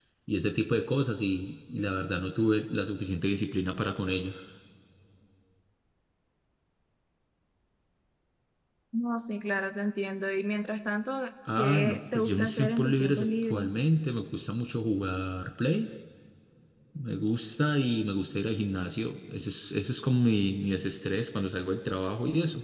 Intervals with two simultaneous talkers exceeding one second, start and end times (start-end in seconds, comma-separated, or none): 11.6-13.7